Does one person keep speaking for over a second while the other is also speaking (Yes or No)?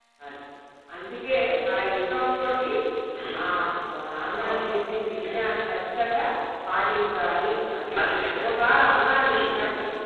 No